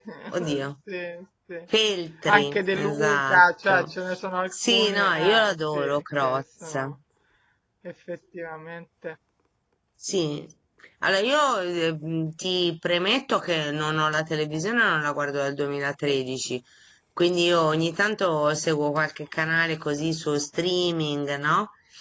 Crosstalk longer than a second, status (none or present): present